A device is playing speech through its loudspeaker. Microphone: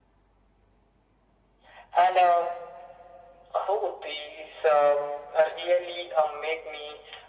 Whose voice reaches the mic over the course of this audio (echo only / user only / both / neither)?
echo only